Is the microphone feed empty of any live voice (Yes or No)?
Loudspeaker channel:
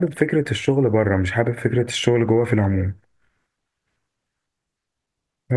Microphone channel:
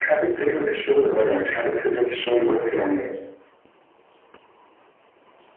Yes